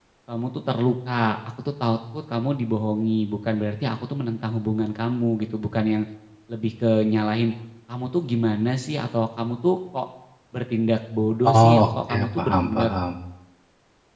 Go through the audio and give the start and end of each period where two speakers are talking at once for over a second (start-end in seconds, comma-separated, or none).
11.5-12.9